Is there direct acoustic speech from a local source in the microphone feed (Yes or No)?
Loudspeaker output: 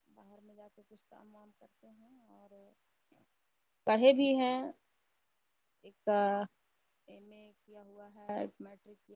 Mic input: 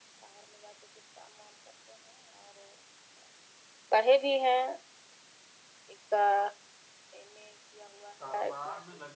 Yes